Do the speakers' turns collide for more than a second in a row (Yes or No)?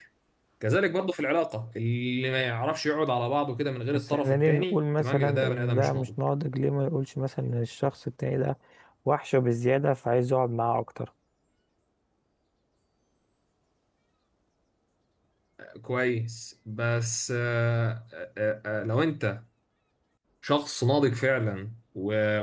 Yes